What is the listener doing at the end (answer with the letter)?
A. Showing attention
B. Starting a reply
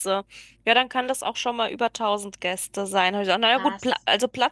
A